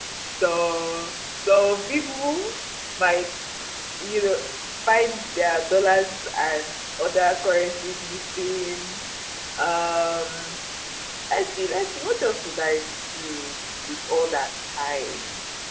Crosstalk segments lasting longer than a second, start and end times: none

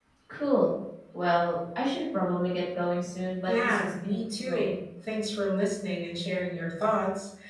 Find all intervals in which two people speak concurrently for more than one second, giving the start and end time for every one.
3.5-4.7

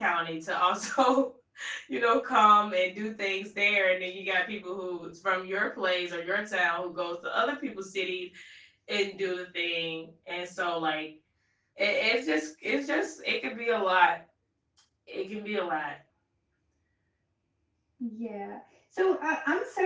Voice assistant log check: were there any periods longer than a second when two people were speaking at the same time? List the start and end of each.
none

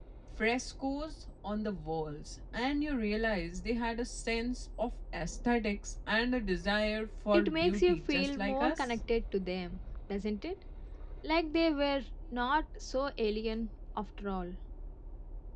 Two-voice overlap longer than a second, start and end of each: 7.3-8.9

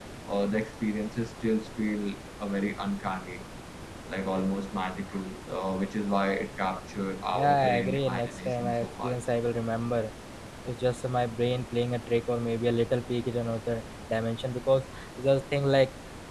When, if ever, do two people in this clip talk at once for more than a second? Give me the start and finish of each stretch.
7.3-9.2

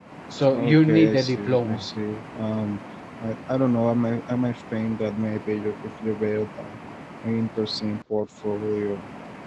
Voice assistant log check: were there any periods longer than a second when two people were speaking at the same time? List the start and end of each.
0.5-1.9

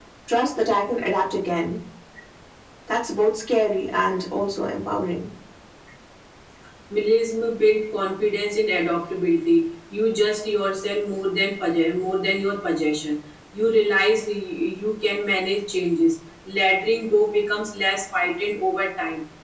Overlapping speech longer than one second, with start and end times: none

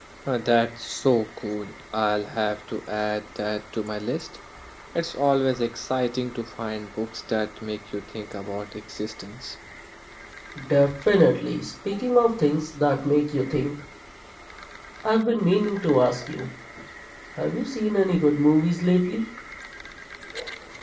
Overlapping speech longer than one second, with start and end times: none

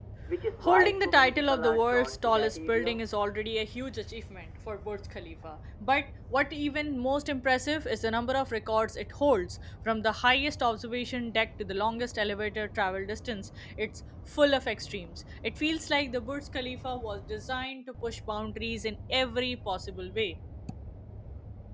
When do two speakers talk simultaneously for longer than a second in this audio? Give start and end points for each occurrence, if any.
0.6-3.0

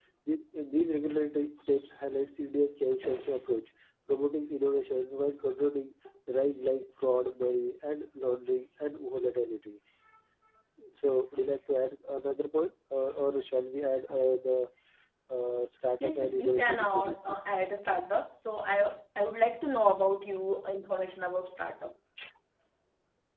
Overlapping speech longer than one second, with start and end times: 16.0-17.4

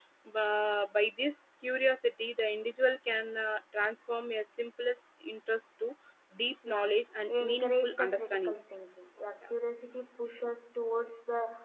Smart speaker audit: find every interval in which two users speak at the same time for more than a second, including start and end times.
7.3-8.5

